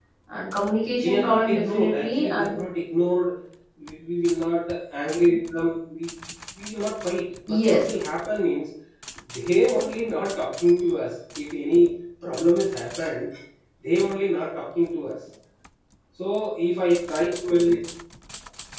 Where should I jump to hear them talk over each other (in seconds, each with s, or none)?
1.0 s